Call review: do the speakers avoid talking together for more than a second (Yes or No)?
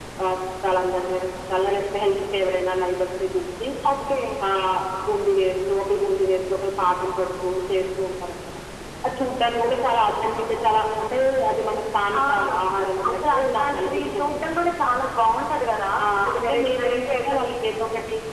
No